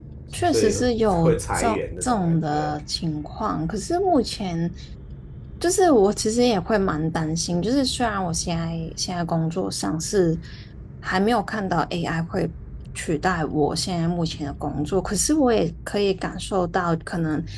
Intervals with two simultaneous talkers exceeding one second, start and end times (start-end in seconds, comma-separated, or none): 1.2-2.8